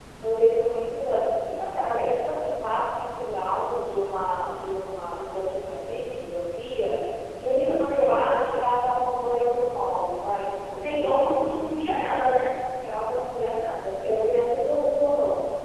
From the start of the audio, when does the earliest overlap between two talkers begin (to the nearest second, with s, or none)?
7 s